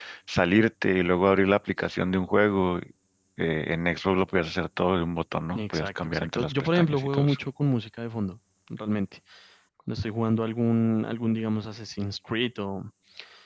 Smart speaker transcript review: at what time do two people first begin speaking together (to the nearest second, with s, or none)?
6 s